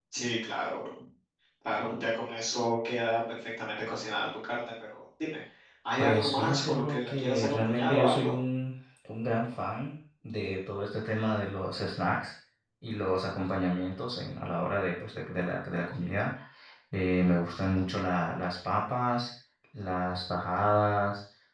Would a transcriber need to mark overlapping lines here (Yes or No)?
Yes